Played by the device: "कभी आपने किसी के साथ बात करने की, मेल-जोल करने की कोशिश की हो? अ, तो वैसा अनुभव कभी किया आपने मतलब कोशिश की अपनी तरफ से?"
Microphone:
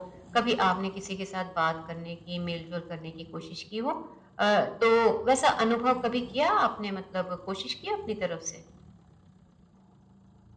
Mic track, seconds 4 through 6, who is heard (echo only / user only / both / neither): echo only